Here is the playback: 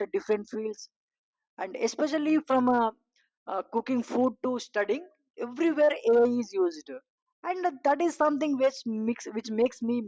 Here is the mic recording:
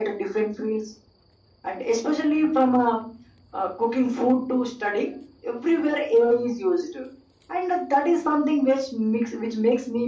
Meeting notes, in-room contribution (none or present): none